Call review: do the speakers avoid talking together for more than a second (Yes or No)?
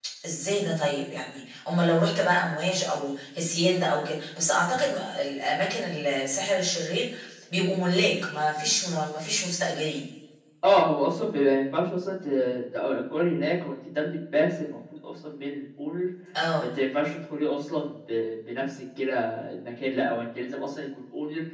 Yes